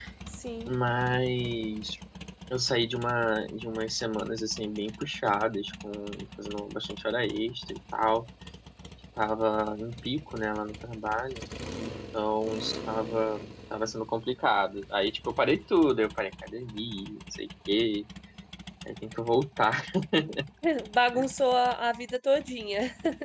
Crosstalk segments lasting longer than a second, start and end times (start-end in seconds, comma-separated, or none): none